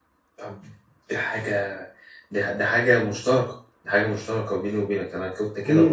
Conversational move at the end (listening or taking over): taking over